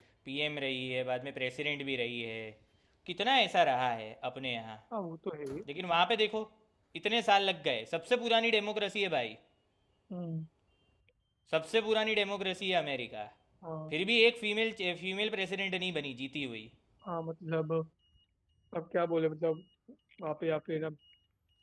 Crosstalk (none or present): none